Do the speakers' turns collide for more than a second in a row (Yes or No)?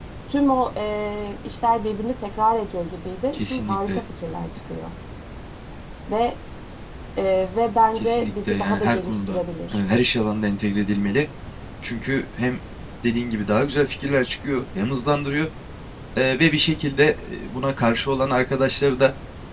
Yes